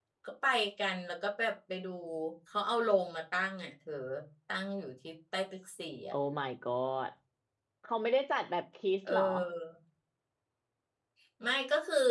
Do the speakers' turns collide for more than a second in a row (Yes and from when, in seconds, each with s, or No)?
No